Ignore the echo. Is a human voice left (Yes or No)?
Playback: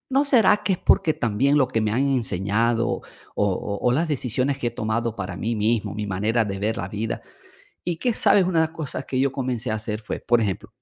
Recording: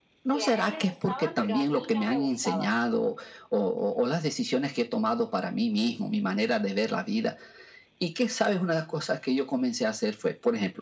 Yes